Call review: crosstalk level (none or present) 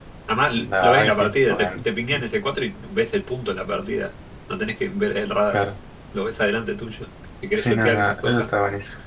present